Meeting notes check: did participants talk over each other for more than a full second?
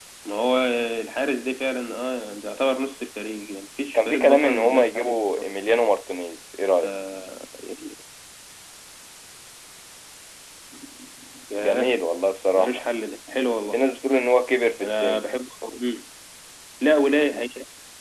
Yes, from 3.9 s

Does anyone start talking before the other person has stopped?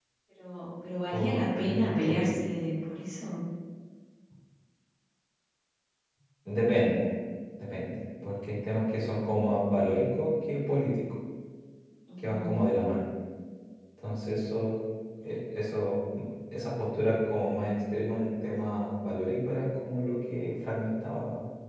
Yes, from 1.1 s

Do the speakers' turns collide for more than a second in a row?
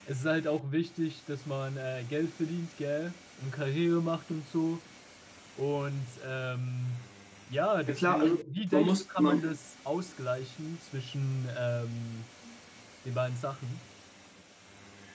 Yes, from 7.9 s

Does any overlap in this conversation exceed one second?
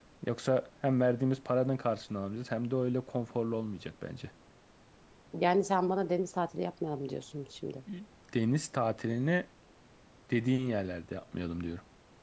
No

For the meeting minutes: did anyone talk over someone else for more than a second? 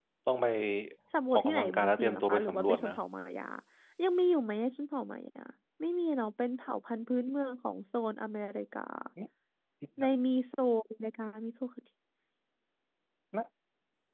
Yes, from 1.3 s

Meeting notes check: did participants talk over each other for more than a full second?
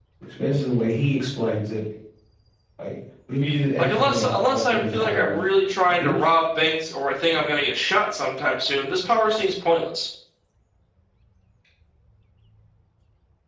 Yes, from 3.8 s

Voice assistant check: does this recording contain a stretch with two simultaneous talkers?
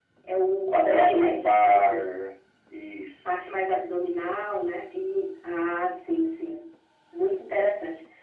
Yes, from 0.8 s

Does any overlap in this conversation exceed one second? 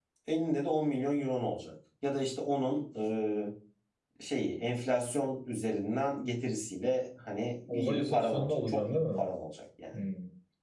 Yes, from 7.7 s

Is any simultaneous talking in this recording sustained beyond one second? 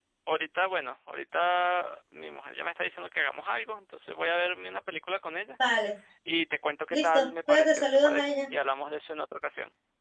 Yes, from 6.9 s

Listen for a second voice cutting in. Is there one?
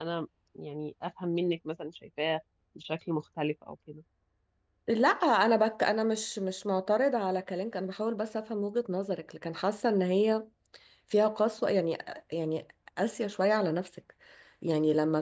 No

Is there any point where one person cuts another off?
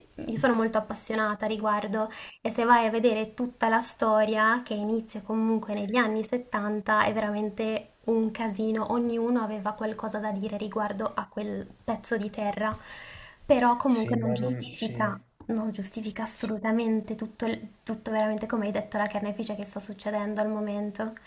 Yes, from 13.9 s

